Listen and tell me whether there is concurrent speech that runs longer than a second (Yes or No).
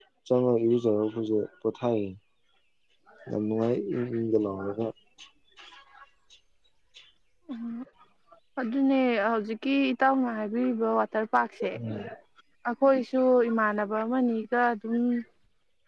No